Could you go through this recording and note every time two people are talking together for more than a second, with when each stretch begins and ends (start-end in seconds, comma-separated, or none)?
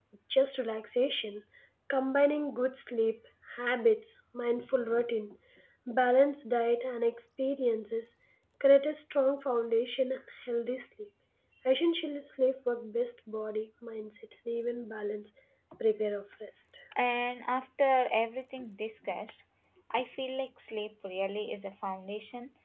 none